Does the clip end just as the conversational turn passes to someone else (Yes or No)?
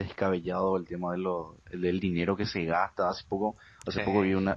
No